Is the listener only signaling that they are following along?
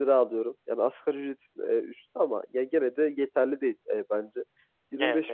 Yes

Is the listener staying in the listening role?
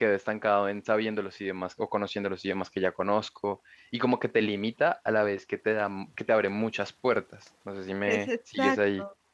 No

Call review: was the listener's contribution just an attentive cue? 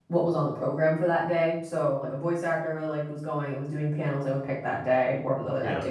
Yes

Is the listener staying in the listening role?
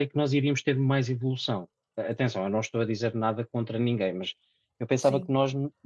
Yes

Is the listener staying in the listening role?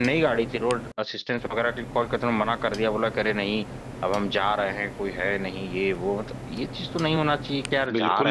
No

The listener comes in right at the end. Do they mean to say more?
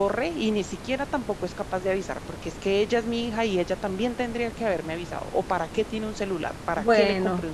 Yes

